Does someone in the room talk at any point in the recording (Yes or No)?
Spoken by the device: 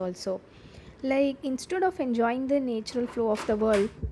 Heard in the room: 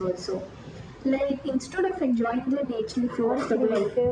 Yes